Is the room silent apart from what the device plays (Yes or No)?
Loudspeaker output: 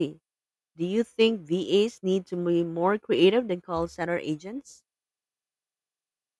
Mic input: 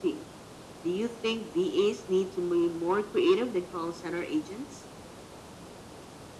Yes